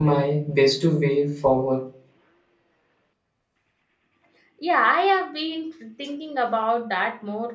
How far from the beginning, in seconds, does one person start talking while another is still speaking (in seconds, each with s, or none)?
none